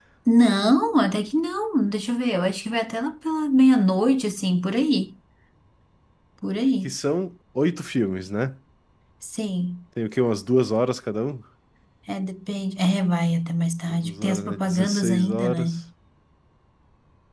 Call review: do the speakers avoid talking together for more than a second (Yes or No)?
No